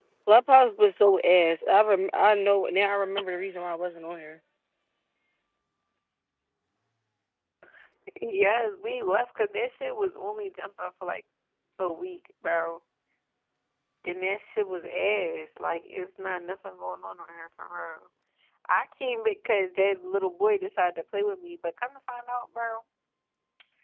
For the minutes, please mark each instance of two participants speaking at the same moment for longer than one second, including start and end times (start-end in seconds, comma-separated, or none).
none